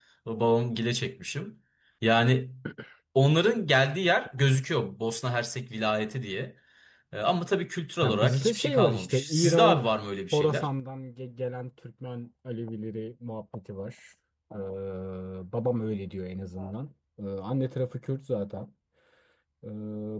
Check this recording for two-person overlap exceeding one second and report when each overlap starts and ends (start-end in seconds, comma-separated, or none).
8.0-9.8